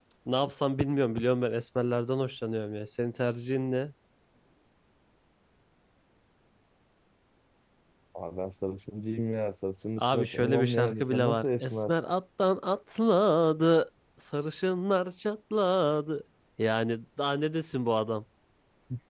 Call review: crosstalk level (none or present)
present